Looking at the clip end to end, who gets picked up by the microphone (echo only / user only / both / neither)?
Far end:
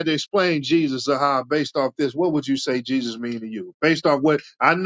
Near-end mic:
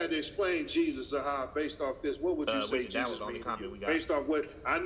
both